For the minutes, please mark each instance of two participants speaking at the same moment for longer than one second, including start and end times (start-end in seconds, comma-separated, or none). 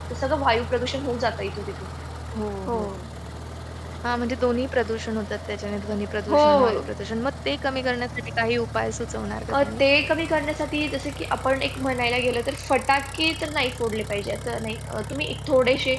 none